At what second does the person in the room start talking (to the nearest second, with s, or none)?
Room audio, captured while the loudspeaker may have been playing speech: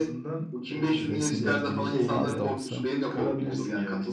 1 s